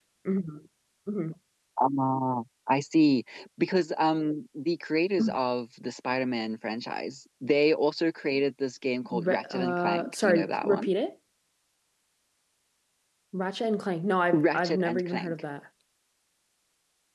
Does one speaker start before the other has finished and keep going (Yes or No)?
Yes